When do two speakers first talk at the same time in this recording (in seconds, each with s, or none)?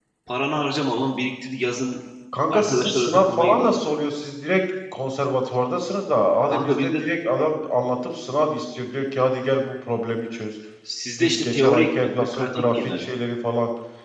2.5 s